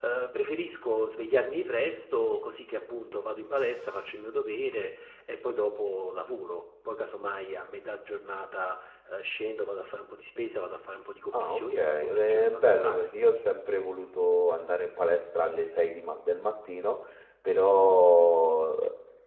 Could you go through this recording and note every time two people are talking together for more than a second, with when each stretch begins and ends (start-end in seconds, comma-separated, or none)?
11.3-13.1